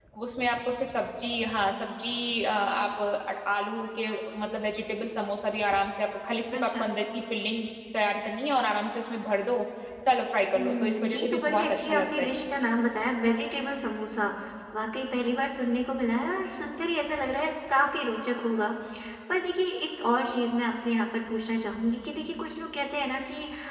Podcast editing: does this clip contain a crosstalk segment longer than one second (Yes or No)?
Yes